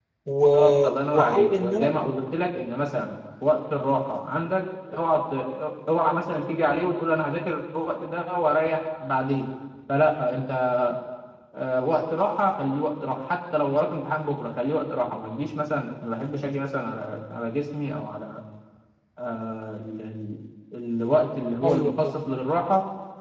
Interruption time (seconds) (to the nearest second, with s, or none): 1 s